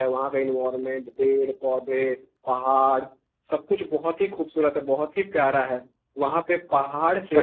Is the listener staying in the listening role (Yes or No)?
Yes